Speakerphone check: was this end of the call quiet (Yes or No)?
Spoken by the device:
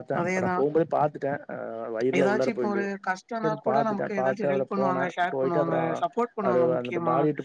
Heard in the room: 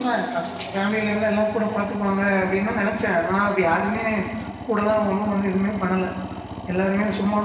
No